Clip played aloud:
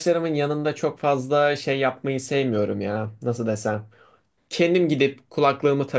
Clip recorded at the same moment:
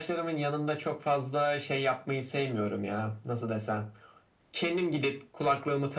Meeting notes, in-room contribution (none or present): none